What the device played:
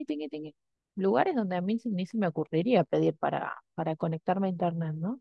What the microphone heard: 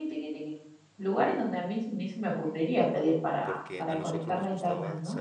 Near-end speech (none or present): present